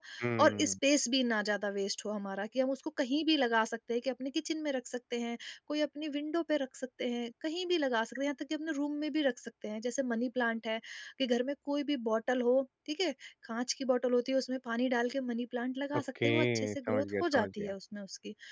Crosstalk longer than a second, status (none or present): present